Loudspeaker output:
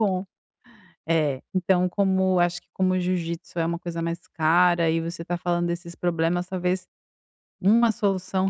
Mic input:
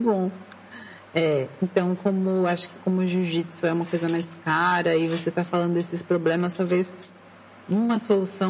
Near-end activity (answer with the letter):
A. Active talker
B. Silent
B